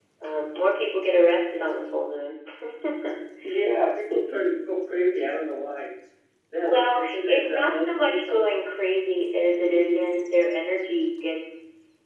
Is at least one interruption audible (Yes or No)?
Yes